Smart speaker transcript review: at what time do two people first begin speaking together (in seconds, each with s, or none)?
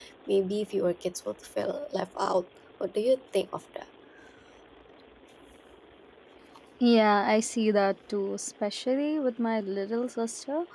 none